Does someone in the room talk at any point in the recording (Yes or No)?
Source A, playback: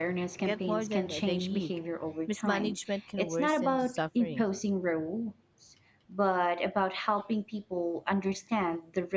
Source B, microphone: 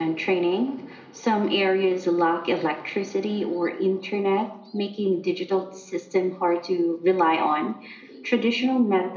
Yes